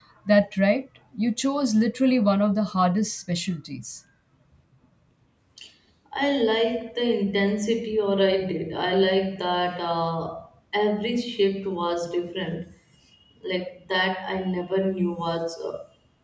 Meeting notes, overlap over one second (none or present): none